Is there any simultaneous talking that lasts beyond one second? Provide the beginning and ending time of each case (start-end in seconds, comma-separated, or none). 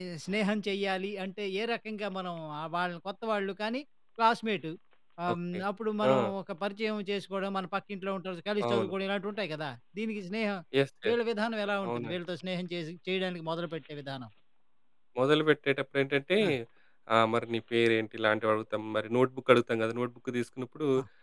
none